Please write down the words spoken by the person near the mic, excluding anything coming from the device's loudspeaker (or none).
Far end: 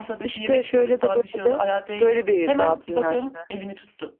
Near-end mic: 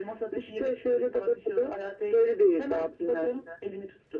none